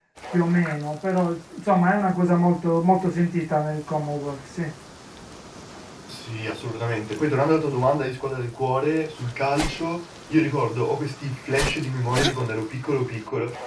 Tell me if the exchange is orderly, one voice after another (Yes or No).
Yes